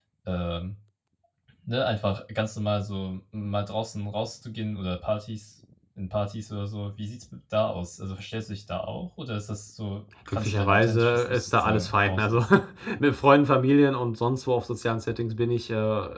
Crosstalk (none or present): present